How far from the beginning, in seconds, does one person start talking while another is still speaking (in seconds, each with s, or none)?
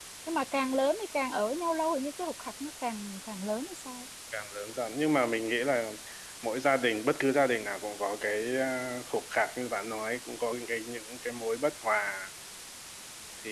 none